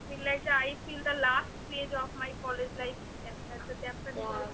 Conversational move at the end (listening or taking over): taking over